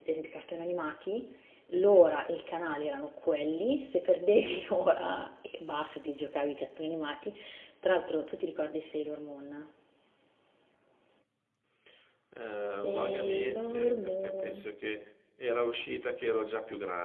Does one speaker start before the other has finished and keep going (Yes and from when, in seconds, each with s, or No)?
Yes, from 12.9 s